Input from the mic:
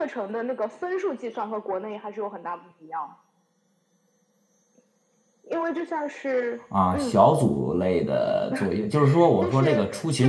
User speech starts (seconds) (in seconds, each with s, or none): 6.7 s